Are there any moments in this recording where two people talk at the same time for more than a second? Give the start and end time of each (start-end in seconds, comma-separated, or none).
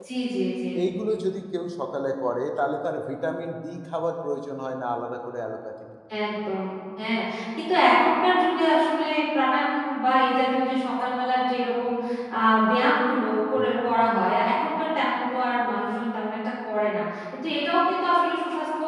none